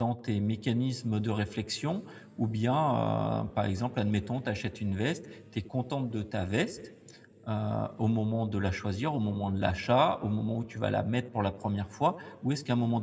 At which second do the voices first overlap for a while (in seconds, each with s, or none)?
none